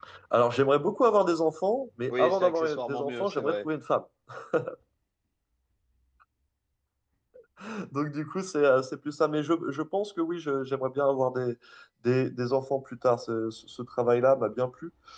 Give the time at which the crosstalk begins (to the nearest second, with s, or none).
2 s